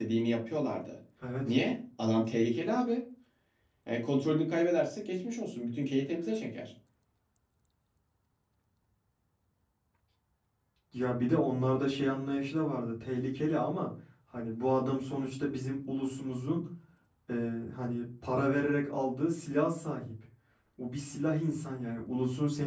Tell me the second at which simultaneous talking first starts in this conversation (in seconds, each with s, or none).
none